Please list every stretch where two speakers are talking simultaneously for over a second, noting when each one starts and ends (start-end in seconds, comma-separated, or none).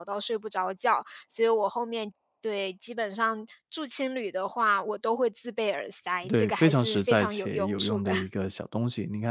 6.3-8.1